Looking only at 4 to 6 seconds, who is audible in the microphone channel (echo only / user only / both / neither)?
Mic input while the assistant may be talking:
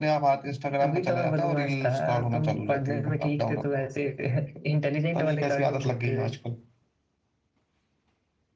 echo only